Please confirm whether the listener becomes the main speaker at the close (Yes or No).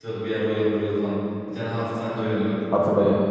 No